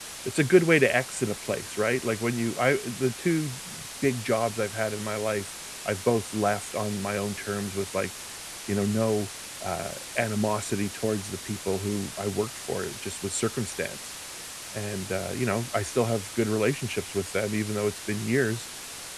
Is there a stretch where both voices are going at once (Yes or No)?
No